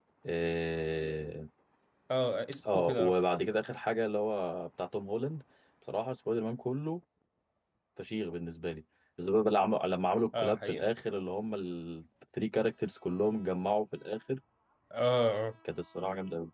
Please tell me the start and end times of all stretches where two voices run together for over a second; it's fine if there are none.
none

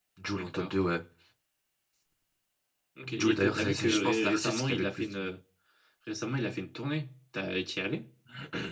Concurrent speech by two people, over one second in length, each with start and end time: 3.2-5.3

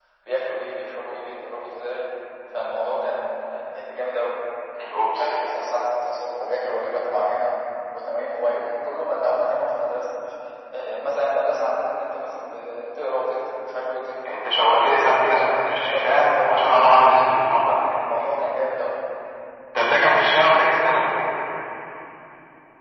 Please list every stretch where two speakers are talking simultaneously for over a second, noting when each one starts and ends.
14.8-16.8

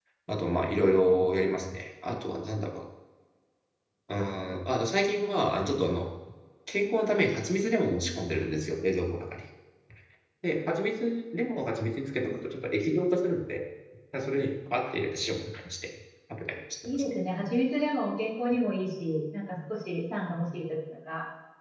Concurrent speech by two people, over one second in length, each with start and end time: none

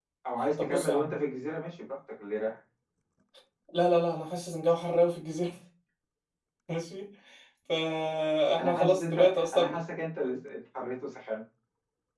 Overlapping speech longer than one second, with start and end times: 8.6-9.8

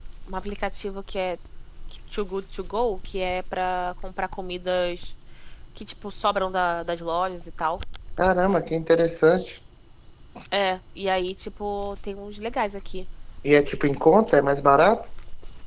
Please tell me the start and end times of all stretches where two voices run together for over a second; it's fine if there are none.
none

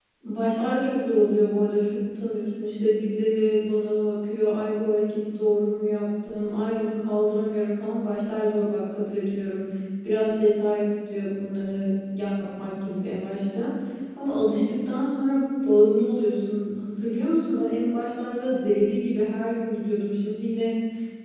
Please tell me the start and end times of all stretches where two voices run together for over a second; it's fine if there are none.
none

